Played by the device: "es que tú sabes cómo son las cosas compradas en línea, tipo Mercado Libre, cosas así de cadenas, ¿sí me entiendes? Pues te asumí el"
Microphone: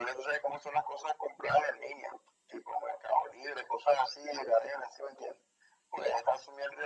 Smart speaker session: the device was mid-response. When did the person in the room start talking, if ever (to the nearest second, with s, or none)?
none